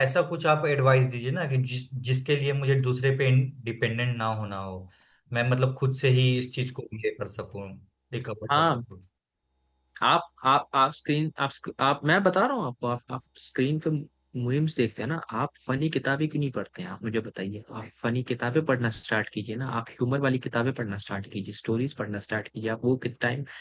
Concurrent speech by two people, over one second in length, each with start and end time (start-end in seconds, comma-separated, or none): none